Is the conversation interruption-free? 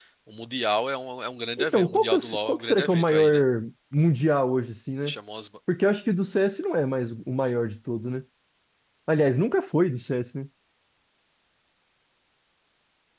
No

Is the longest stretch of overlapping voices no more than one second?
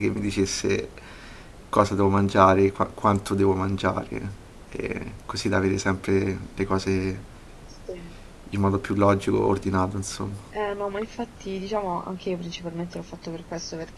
Yes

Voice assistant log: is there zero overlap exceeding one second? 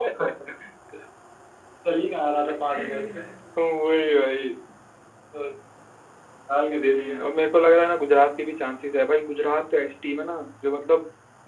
Yes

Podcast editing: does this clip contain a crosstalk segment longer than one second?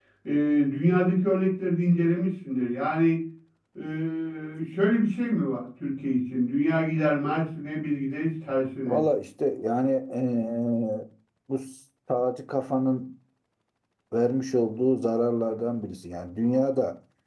No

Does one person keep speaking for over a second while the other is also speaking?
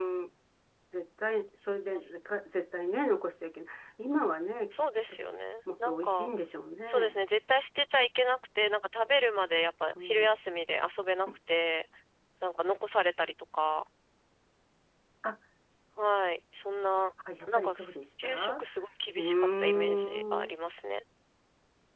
Yes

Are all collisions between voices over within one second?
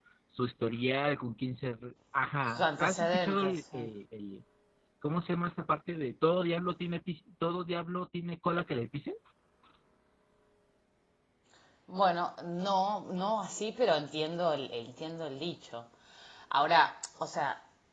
No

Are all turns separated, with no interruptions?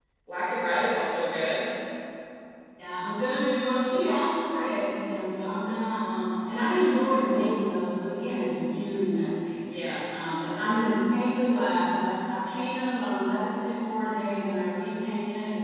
Yes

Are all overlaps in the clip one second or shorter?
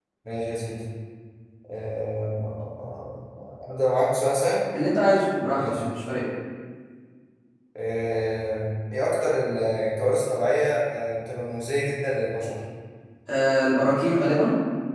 Yes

